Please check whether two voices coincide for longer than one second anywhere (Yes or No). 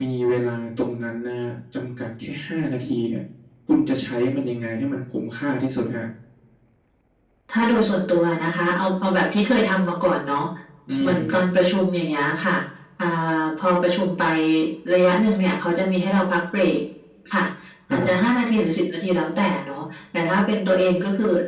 No